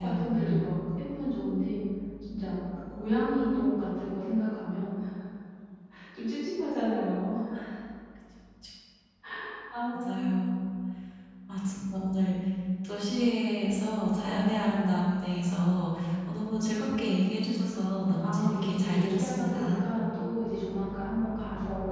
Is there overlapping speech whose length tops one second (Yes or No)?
Yes